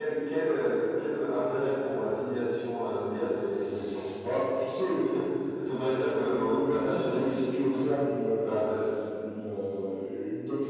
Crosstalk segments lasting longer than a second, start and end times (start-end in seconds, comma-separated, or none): 6.2-7.4